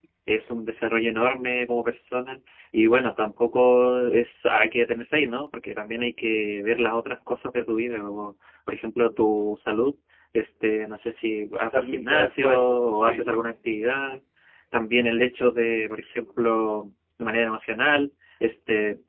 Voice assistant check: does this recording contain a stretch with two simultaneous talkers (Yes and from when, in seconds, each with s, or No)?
Yes, from 11.7 s